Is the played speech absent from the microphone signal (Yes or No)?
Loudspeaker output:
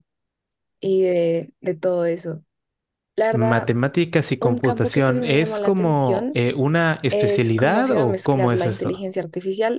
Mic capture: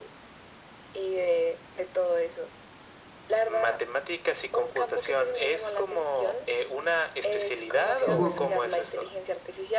No